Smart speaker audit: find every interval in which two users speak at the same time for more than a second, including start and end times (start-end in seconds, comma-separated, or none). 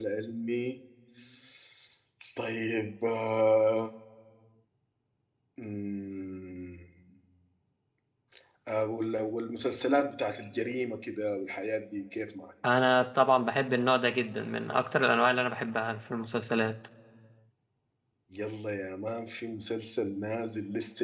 none